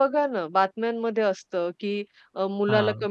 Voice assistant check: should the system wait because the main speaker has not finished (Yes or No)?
Yes